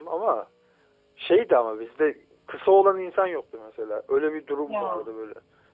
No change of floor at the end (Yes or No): Yes